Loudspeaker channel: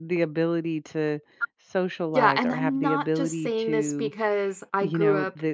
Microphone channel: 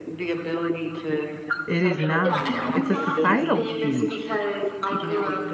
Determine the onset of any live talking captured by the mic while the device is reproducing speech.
1.7 s

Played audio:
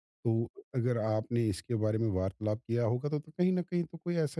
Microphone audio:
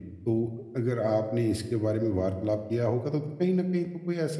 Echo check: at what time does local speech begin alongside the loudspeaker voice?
none

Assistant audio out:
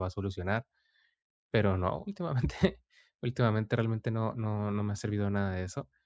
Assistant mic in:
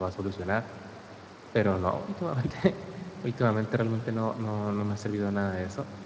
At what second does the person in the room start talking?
none

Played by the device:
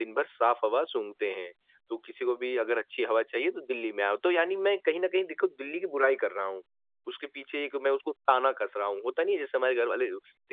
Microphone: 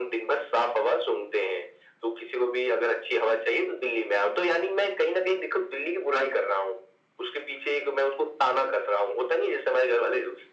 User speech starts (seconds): none

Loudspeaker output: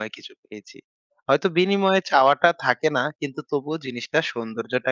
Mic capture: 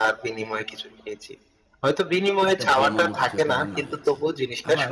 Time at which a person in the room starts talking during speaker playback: 2.5 s

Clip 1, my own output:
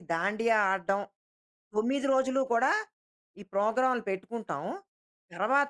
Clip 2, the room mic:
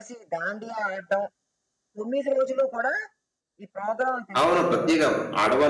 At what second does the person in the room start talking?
4.4 s

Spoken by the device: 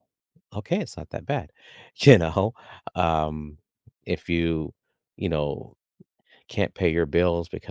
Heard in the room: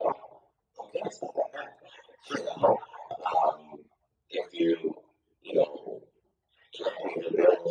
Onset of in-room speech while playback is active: none

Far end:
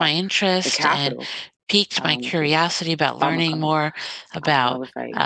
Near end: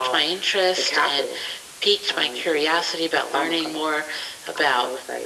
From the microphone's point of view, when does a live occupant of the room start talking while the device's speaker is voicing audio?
none

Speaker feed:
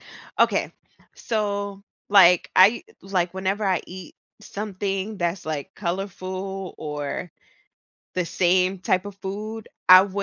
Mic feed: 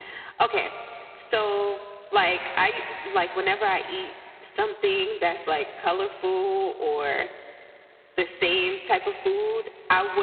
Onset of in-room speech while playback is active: none

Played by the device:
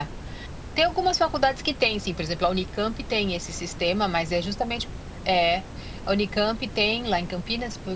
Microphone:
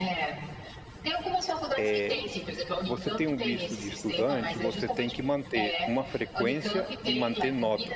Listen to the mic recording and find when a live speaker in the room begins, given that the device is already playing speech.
1.8 s

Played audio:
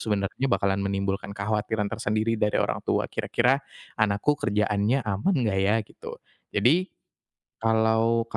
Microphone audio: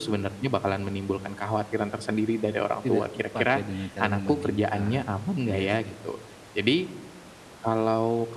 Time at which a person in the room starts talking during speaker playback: 2.8 s

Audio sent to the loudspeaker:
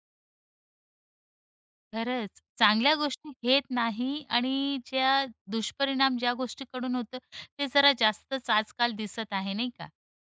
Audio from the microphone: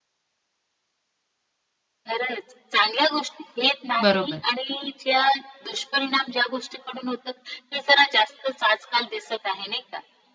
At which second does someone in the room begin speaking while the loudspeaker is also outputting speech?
4.0 s

